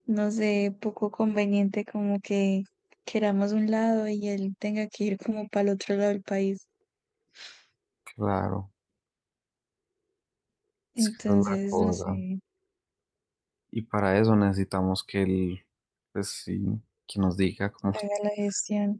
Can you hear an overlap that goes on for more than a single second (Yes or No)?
Yes